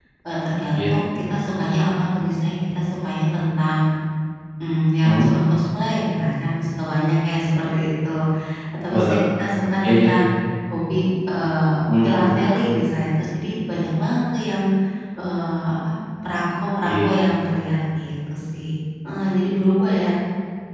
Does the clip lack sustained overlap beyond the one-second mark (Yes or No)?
Yes